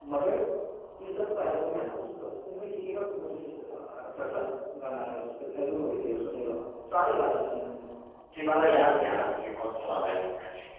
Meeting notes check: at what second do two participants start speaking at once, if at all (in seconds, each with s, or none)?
none